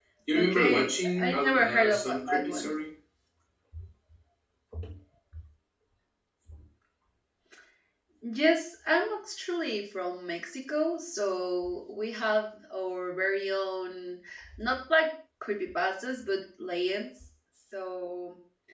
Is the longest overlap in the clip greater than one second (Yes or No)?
Yes